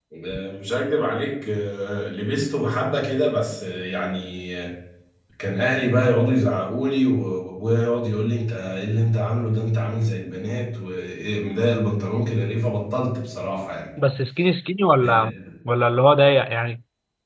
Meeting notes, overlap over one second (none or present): none